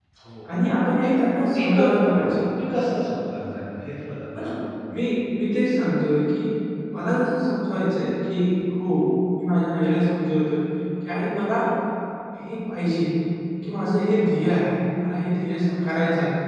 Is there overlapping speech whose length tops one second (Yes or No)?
Yes